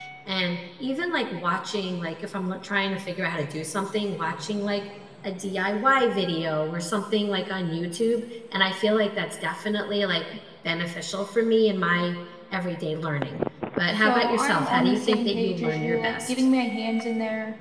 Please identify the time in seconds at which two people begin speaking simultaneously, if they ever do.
14 s

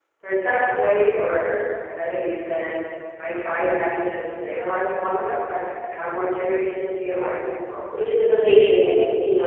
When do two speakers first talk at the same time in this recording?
none

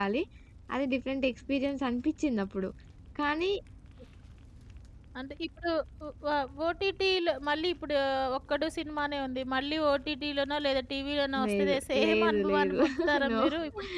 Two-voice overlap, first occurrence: 11 s

